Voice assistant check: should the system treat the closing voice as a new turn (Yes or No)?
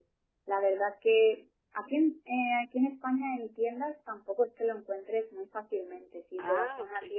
No